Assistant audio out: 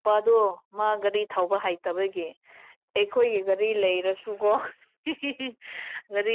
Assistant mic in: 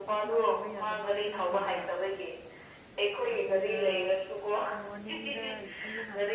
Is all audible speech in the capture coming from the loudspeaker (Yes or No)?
No